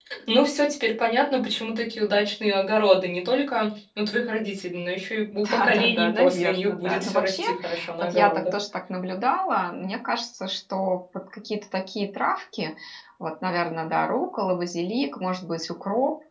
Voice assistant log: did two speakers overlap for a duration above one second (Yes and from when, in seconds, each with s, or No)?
Yes, from 5.4 s